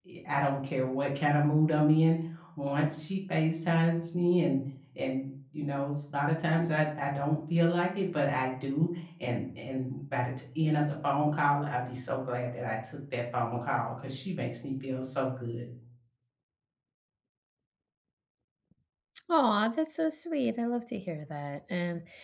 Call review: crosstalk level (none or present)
none